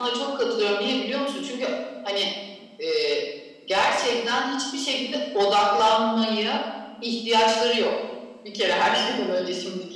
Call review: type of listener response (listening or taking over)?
listening